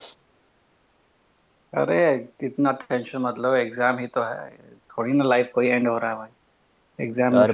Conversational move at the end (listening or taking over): listening